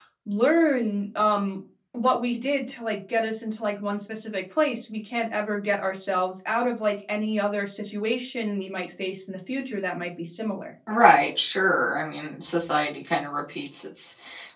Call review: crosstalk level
none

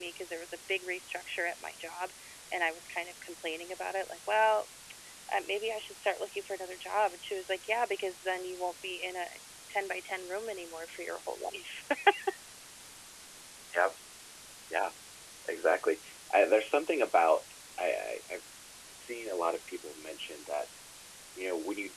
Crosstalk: none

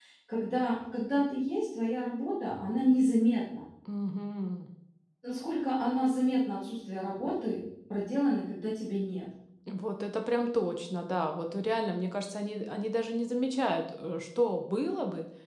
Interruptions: none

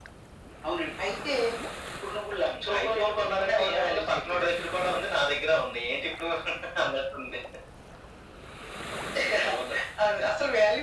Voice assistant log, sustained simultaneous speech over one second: present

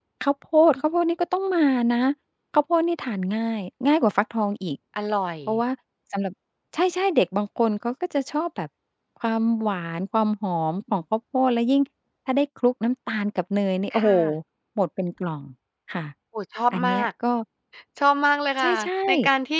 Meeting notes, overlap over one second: none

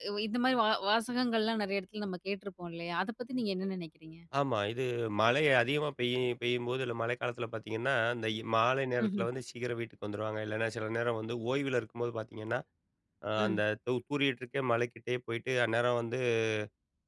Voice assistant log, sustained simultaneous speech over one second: none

